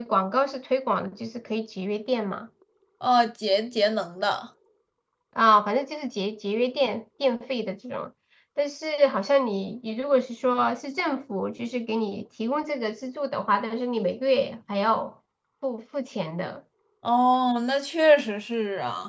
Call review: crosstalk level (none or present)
none